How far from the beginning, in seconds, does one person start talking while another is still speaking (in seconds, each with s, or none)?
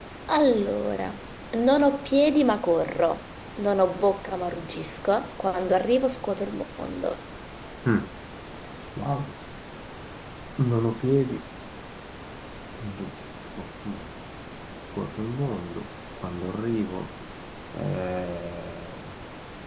none